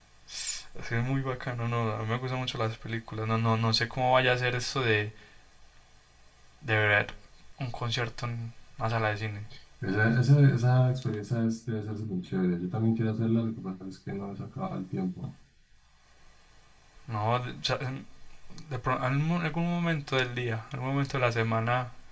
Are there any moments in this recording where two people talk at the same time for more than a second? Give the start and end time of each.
none

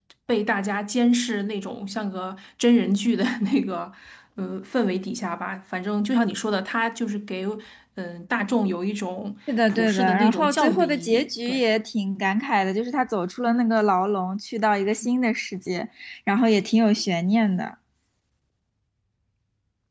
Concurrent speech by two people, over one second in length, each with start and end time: 9.7-11.6

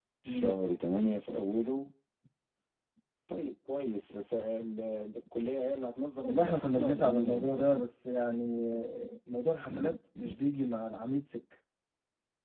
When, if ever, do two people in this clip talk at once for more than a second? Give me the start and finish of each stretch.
6.2-7.8

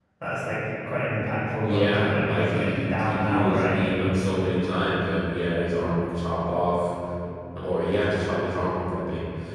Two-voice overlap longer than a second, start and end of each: 1.6-3.7

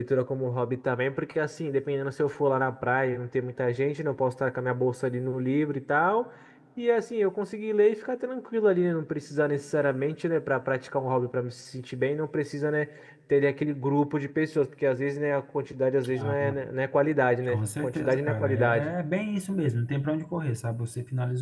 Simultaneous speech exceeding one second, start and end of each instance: 17.5-18.9

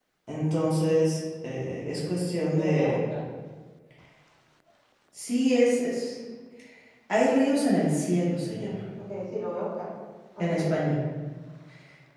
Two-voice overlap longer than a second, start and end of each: none

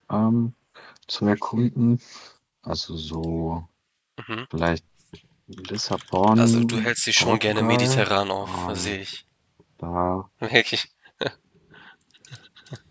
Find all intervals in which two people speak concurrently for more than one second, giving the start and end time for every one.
6.4-8.0

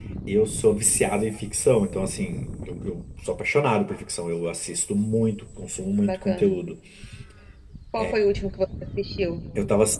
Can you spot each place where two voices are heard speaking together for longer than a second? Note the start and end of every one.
none

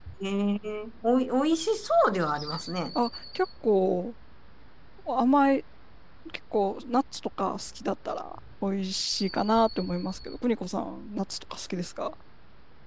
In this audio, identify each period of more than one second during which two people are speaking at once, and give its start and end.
none

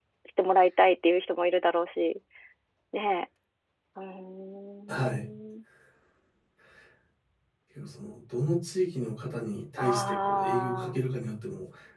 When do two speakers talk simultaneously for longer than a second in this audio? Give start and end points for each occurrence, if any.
9.8-11.0

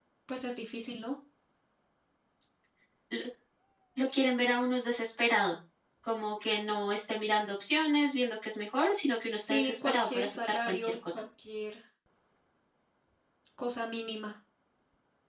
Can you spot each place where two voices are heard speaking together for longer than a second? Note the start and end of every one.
9.4-11.2

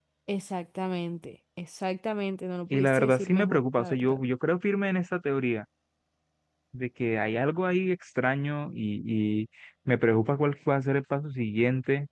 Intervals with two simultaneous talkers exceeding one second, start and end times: 2.7-4.2

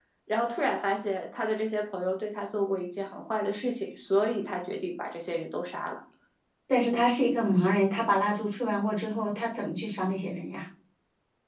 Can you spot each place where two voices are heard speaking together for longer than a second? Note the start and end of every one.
none

